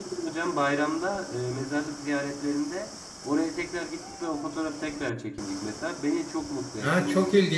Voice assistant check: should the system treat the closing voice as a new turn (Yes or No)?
Yes